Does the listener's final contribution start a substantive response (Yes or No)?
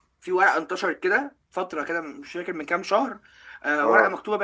No